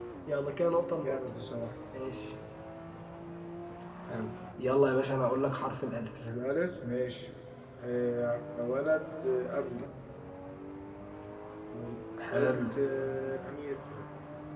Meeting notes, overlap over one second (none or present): none